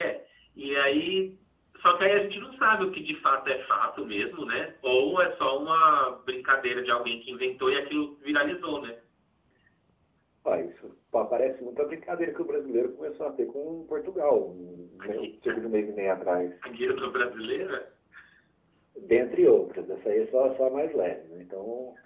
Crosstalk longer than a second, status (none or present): none